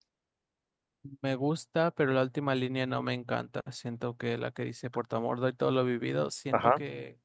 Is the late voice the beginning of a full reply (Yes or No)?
No